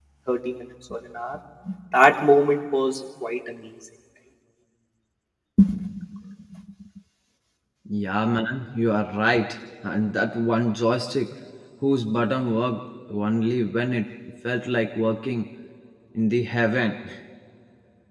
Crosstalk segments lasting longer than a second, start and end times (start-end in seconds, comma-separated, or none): none